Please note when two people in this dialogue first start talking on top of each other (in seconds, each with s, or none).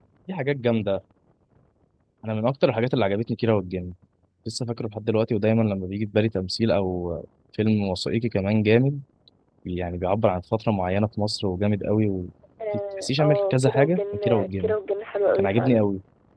13.0 s